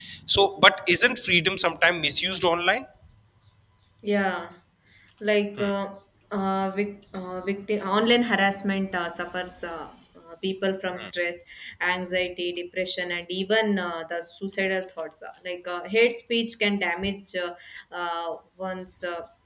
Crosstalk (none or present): none